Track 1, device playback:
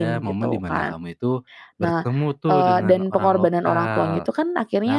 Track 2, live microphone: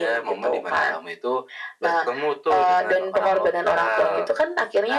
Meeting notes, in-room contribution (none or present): none